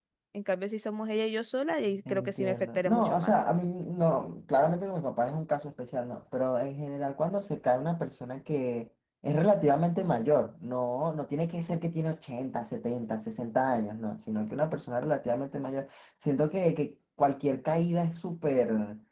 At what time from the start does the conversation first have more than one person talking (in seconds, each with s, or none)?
2.0 s